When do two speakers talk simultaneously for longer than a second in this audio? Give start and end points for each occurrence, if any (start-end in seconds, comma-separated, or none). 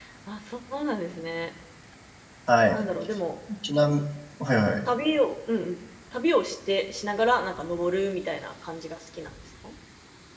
none